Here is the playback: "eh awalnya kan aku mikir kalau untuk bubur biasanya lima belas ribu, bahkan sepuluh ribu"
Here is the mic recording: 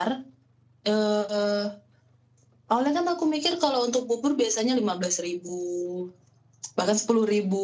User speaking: No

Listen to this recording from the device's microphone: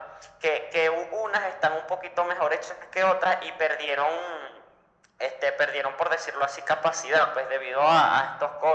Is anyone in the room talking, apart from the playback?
No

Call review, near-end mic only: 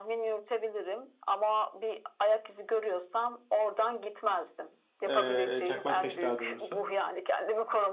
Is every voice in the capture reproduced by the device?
No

